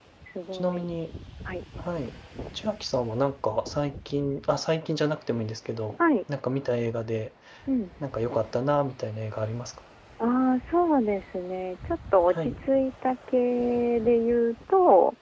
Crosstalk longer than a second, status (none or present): none